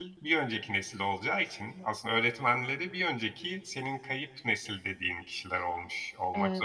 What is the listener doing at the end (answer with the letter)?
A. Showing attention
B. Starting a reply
B